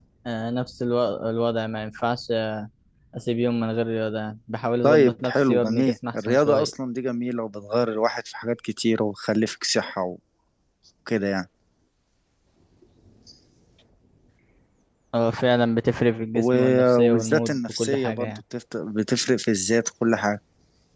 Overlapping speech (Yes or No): Yes